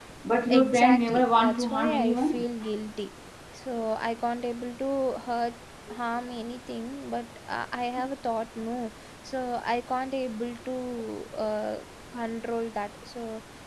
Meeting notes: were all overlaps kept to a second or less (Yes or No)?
No